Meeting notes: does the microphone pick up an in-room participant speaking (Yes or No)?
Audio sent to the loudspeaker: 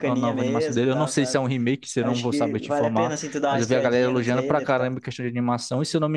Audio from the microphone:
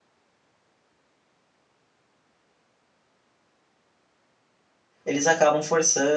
Yes